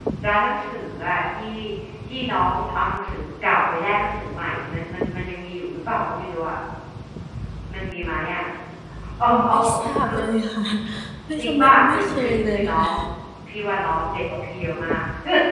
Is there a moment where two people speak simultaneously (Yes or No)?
Yes